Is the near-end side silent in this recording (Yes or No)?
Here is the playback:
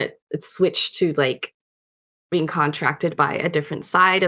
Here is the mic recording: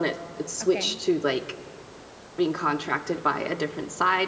No